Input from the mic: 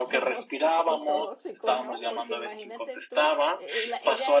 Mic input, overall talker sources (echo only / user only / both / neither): both